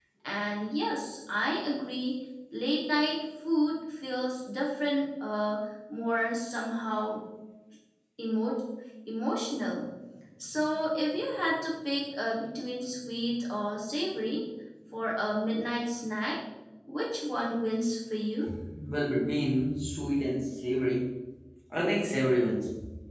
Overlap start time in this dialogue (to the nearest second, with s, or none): none